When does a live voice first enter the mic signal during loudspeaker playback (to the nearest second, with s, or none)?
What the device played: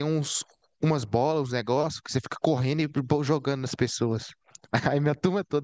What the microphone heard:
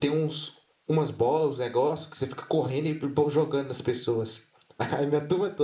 none